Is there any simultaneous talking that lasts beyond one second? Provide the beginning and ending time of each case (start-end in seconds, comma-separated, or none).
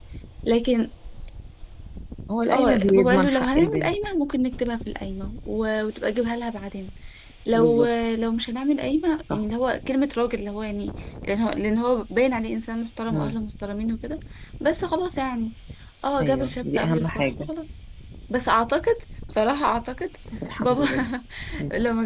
2.5-3.9, 16.2-17.5